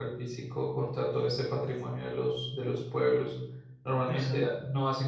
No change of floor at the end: Yes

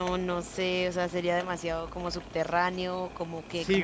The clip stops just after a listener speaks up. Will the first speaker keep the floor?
No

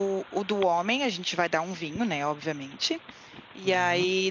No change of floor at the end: Yes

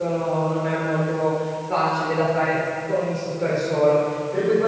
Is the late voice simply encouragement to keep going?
Yes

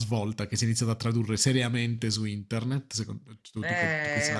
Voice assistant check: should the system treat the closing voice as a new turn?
Yes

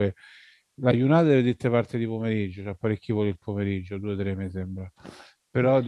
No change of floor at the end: Yes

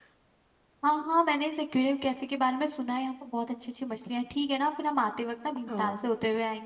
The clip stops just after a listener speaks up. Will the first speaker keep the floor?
Yes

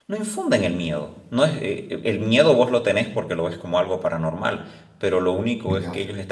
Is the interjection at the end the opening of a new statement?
No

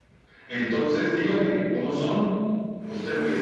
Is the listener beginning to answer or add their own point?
No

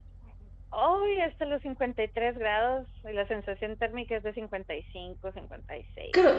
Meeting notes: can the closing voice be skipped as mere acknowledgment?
No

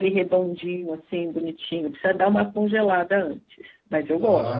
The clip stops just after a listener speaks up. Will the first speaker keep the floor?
No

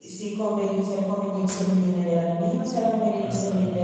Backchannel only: Yes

